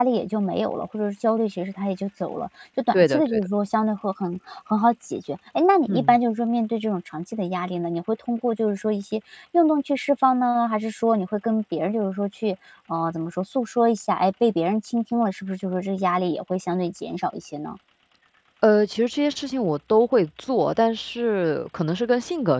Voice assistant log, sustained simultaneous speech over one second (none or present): none